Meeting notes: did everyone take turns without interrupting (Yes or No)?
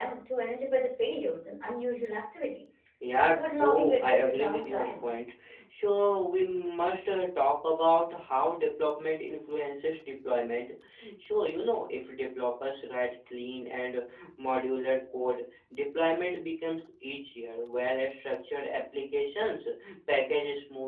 No